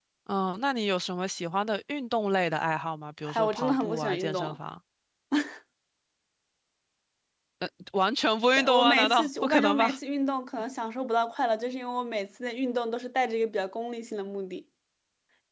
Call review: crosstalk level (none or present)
present